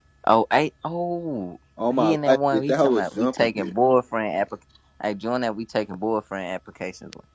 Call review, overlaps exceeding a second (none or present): present